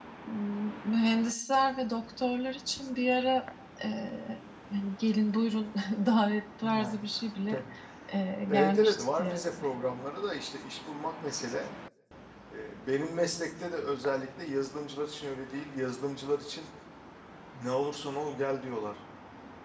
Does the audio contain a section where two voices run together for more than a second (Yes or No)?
Yes